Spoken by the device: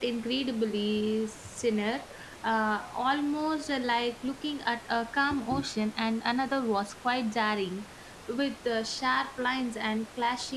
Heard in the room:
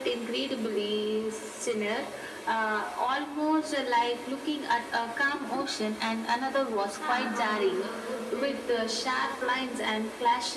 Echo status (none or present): present